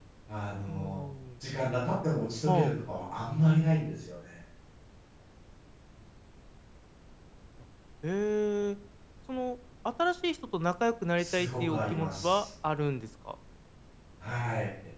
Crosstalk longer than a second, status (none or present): present